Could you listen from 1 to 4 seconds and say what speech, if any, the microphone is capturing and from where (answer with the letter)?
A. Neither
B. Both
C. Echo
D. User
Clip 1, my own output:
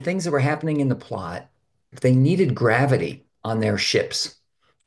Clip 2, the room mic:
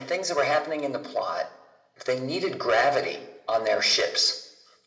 C